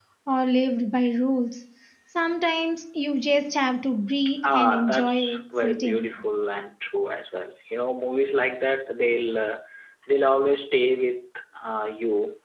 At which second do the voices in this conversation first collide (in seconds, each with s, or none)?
4.3 s